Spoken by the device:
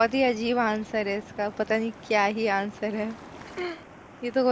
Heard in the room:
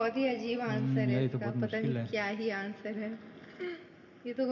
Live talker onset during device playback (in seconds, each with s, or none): 0.7 s